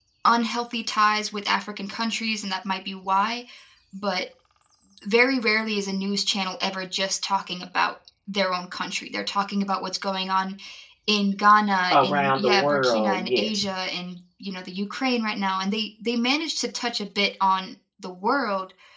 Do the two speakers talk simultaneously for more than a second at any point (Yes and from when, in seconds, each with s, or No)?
Yes, from 11.9 s